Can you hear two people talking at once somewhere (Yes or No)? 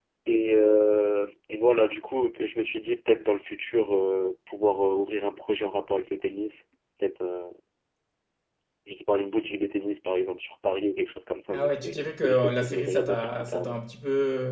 Yes